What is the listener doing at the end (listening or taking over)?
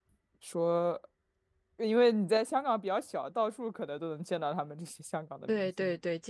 taking over